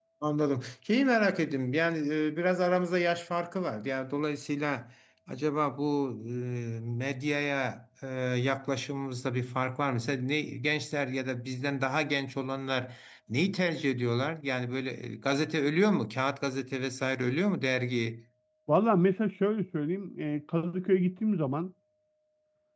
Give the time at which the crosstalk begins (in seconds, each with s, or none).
none